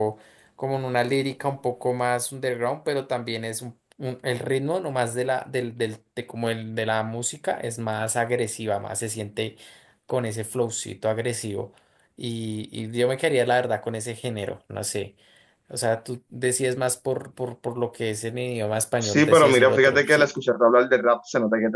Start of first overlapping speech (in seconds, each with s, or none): 19.0 s